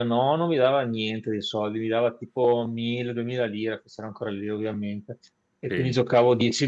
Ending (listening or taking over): listening